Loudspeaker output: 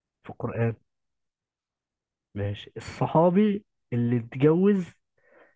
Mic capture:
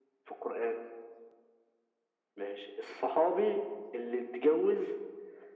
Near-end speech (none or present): none